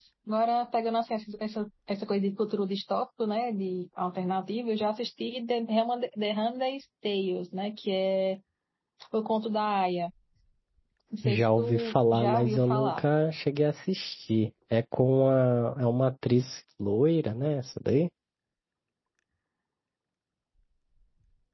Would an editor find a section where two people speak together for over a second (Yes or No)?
Yes